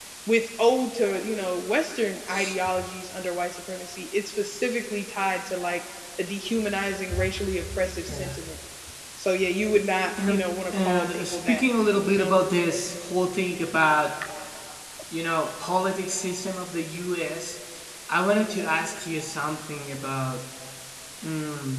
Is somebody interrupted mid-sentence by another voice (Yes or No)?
Yes